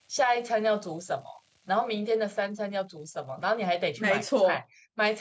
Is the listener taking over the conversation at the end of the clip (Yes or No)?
No